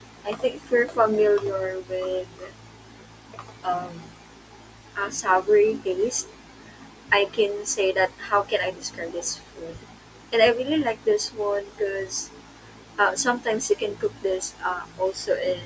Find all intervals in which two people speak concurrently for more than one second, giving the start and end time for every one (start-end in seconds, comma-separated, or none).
none